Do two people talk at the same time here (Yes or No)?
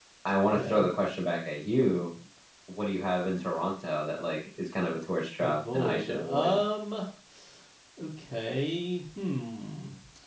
Yes